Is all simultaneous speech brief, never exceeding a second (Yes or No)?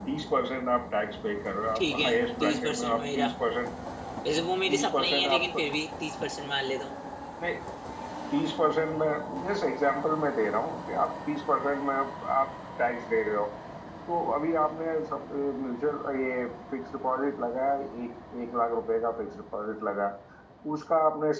No